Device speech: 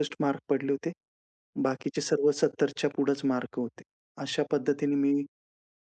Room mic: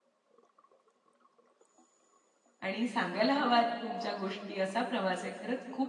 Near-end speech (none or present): present